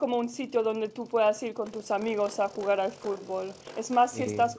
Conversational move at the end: listening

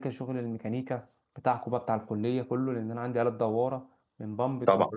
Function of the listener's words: listening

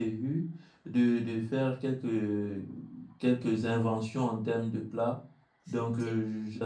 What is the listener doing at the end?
listening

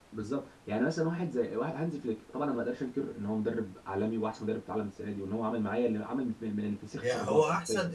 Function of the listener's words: taking over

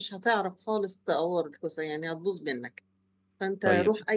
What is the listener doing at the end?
listening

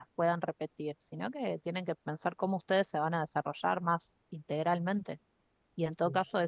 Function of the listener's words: listening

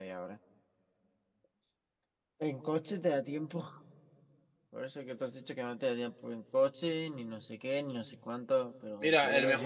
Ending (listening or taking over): taking over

